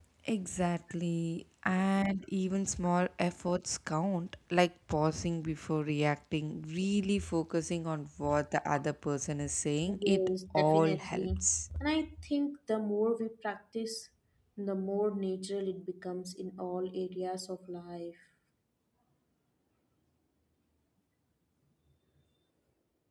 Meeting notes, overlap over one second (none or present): present